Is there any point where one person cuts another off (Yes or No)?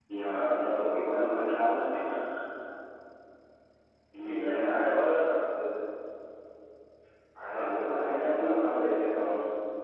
Yes